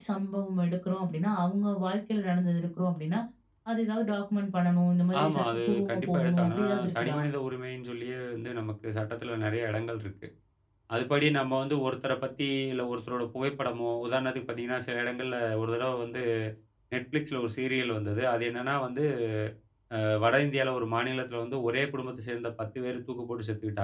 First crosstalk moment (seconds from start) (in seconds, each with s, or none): 5.1 s